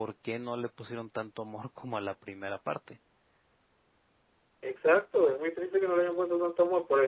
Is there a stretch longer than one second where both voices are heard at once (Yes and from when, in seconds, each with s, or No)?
No